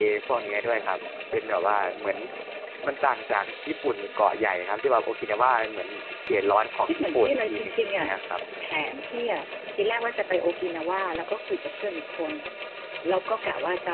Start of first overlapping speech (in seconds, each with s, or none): 6.8 s